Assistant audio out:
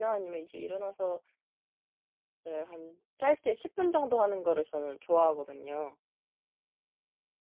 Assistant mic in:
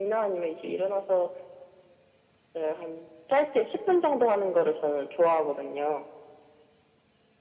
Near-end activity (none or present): none